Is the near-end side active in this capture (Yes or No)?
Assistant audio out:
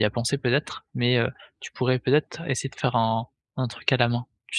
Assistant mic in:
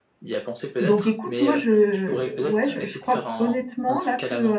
Yes